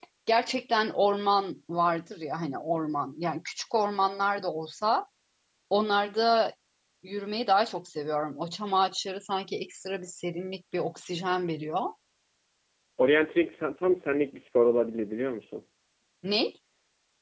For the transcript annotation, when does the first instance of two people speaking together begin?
none

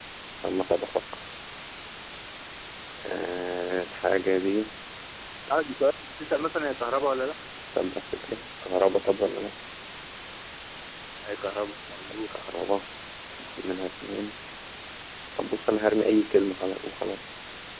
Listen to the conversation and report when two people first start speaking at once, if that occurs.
none

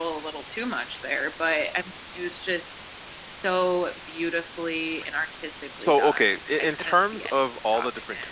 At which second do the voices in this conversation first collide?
5.8 s

